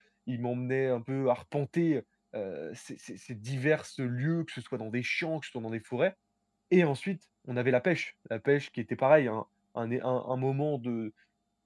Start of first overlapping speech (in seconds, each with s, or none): none